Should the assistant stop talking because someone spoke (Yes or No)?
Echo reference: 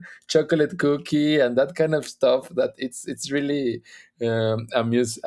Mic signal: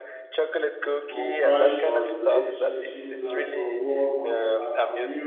Yes